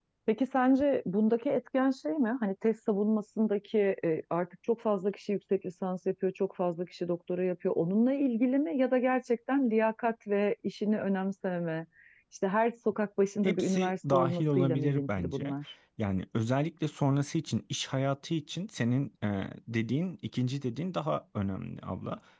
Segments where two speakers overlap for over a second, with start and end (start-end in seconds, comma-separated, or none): 13.4-15.5